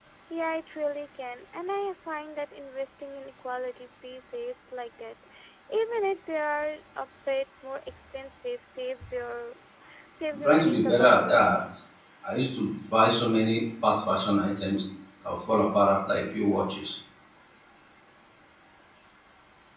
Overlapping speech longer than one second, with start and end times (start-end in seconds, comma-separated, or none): 10.3-11.6